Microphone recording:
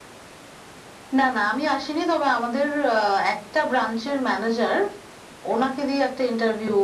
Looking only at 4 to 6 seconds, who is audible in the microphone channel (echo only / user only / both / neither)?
echo only